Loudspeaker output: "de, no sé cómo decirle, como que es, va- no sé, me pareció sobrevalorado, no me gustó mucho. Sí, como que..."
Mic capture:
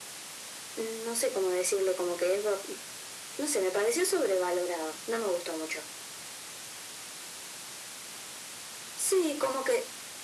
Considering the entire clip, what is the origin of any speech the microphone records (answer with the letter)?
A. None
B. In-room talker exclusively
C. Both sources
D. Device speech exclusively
D